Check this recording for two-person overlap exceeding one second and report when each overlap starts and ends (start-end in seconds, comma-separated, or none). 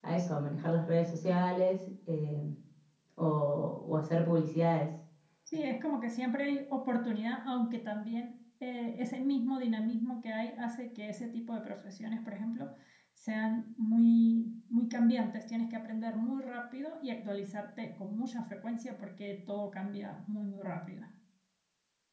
none